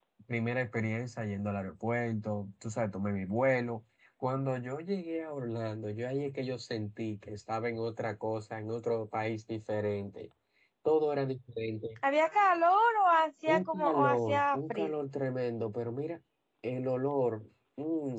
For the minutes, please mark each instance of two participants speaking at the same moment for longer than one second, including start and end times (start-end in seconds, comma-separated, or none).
13.5-14.9